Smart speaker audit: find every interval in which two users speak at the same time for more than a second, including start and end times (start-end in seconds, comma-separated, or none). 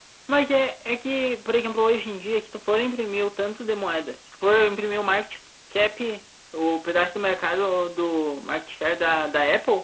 none